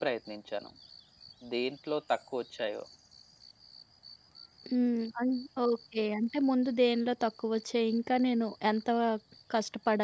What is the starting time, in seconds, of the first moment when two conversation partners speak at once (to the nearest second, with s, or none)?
none